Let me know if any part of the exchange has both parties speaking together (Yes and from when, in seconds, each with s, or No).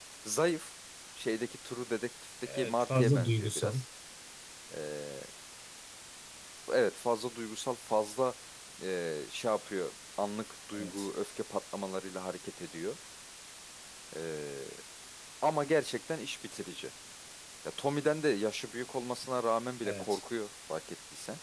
Yes, from 2.5 s